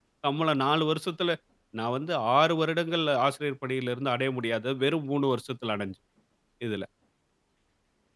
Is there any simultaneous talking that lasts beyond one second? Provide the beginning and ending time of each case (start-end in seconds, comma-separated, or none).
none